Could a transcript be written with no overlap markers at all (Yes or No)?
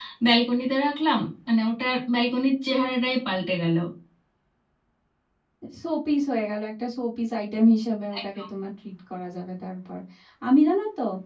Yes